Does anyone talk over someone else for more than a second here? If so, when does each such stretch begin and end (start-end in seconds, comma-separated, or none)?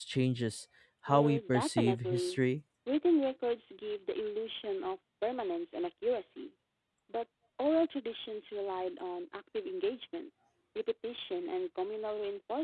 1.1-2.4